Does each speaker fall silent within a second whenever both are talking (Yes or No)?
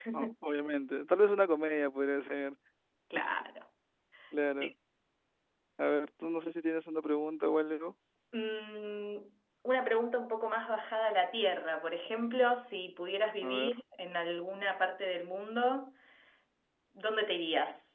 Yes